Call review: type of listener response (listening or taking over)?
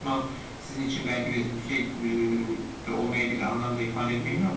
taking over